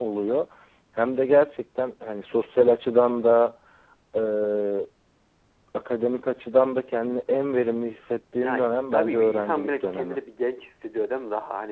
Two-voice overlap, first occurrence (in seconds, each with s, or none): 8.4 s